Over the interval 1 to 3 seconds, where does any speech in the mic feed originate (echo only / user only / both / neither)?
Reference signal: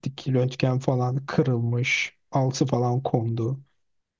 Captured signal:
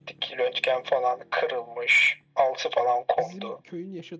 echo only